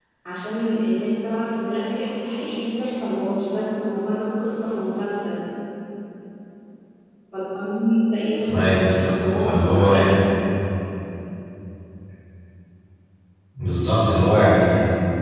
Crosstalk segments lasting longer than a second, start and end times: 8.5-10.2

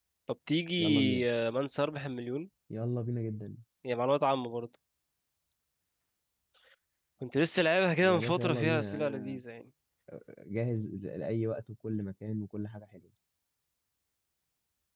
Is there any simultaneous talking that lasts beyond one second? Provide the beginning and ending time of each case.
8.0-9.4

